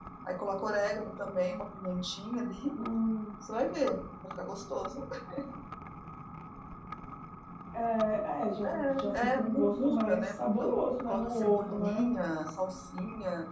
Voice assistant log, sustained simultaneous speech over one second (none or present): present